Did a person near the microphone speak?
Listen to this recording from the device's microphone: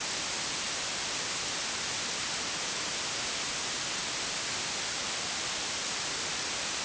No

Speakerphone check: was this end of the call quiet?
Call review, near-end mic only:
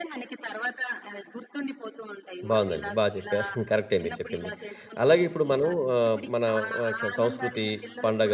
No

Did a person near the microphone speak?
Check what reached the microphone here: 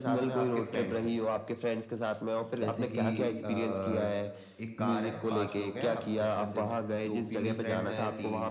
Yes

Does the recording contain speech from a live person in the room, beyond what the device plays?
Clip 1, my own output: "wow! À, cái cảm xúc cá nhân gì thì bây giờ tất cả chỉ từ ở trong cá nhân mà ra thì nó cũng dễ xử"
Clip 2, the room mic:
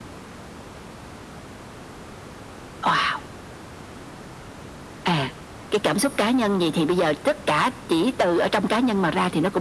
No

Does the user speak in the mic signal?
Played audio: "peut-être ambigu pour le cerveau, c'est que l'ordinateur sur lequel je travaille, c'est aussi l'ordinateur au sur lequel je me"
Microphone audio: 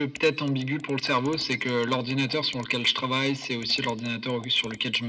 No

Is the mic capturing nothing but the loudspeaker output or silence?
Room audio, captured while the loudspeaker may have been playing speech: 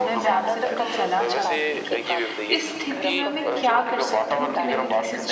No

